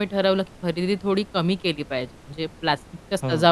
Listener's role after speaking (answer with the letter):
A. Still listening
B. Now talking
A